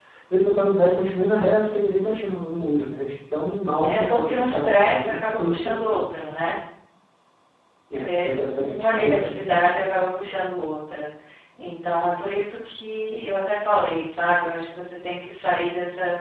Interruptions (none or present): present